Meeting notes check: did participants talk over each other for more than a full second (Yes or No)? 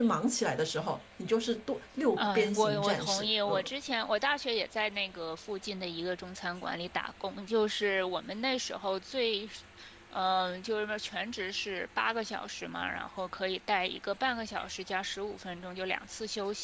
Yes